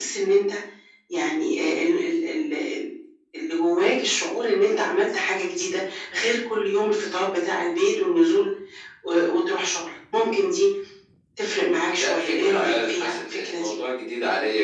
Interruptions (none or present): present